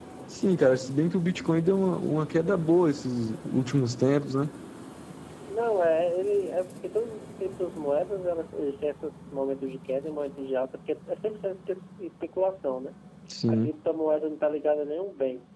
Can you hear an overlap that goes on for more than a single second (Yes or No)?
No